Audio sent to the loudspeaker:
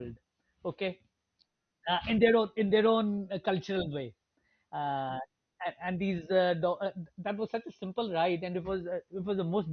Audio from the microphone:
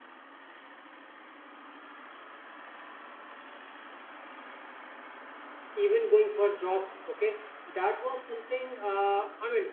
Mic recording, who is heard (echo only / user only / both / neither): user only